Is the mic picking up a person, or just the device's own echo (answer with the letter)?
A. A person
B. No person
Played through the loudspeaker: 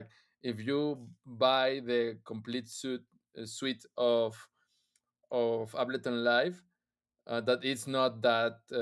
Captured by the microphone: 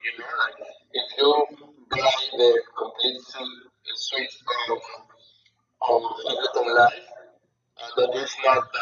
B